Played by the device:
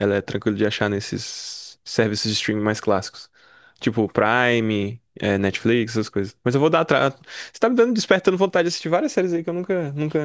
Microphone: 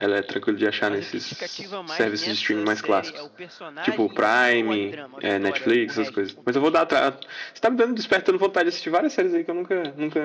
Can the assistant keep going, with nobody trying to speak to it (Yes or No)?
No